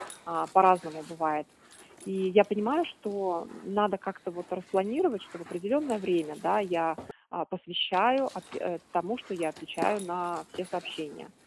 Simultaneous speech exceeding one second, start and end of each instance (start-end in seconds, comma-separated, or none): none